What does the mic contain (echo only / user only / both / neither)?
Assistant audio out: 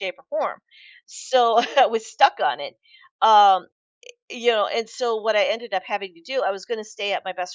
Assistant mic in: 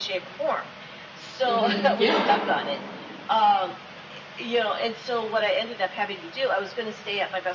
both